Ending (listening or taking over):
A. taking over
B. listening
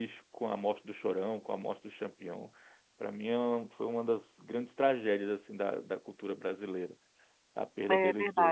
A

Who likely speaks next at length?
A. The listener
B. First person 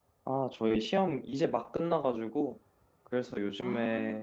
B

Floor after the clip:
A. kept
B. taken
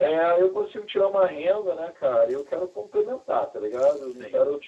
A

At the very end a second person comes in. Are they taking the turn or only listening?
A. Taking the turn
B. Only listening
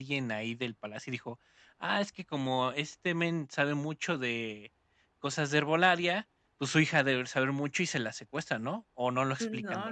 A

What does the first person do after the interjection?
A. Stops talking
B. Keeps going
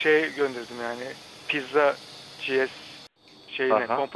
A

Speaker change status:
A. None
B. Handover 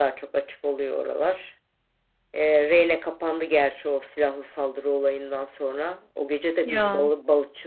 A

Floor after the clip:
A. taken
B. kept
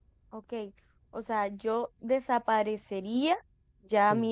B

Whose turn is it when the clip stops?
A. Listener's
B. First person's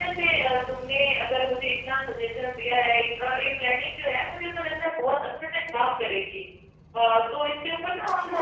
B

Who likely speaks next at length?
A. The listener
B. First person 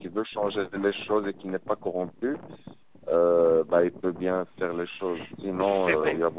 B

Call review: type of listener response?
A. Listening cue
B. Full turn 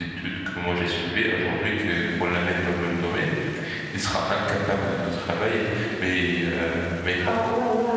B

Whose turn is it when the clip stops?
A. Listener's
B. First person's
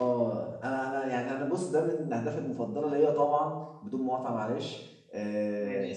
B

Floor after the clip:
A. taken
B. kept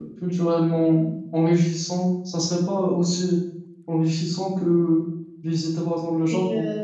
A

